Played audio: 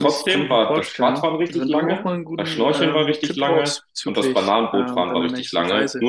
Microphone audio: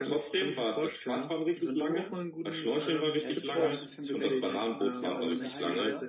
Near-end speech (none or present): present